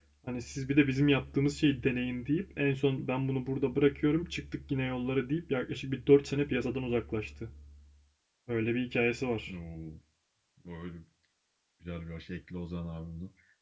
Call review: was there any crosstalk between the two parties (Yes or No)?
No